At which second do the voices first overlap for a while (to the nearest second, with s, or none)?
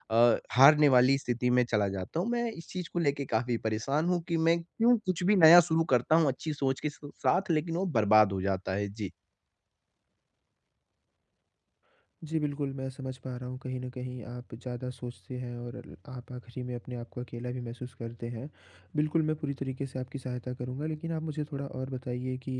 none